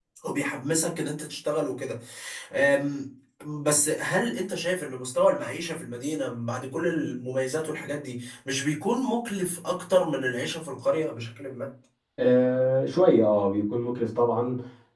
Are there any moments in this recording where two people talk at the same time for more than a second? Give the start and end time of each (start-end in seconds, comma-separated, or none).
none